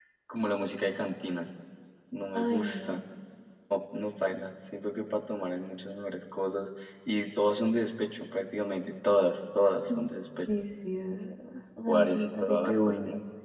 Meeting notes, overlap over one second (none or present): present